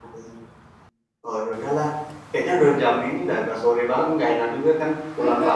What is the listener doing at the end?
taking over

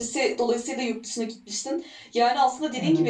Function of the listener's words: listening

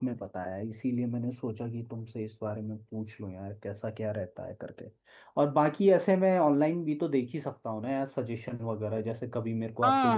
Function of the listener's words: taking over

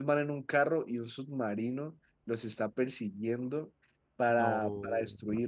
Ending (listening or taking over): listening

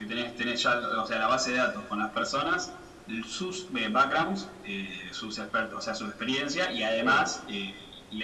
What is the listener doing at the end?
listening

